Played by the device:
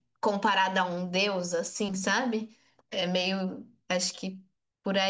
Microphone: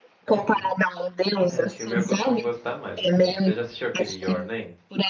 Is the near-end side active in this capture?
Yes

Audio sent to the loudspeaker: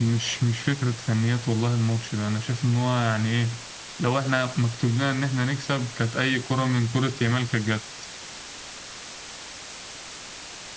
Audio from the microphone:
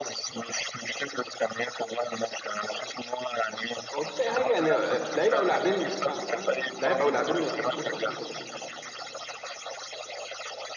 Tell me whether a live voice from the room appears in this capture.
Yes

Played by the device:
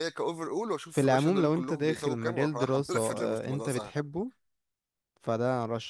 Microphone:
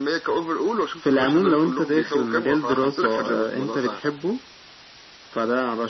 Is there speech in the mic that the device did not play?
No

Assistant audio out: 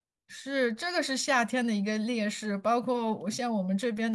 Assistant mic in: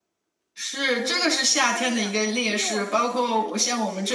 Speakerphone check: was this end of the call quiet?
No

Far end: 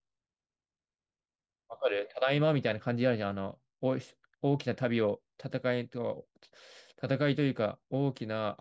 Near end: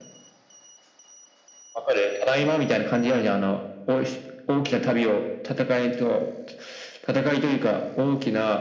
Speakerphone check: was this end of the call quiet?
Yes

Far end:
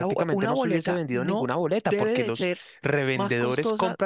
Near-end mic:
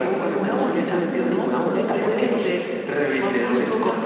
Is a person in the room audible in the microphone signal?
No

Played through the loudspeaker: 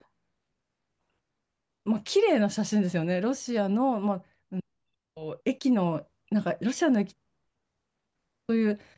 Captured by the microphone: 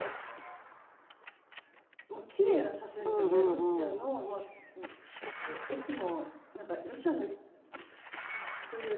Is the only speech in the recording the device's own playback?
No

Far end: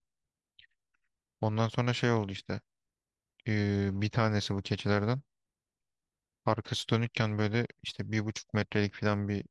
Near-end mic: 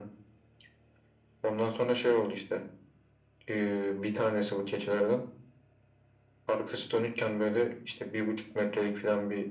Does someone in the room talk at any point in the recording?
No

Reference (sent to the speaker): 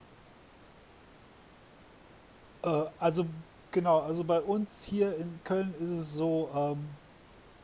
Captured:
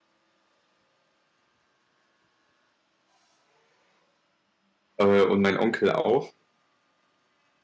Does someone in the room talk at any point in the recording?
Yes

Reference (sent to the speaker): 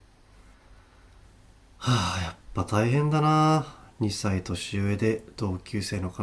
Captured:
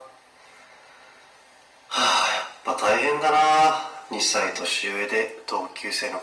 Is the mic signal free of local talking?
Yes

